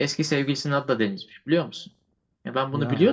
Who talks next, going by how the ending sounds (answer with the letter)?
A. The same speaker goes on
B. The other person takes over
A